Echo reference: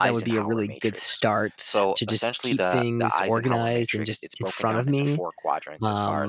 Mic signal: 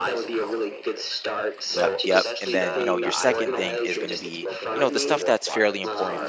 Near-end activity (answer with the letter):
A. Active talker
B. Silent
A